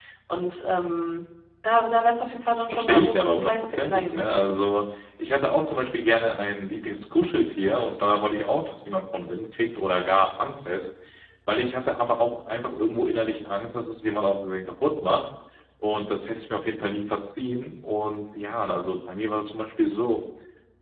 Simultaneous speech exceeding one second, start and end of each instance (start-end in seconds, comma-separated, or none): 2.5-4.6